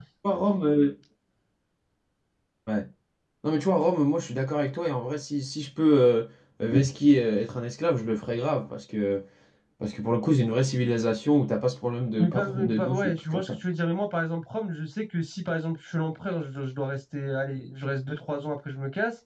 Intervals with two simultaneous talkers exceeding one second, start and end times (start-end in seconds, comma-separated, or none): 12.2-13.6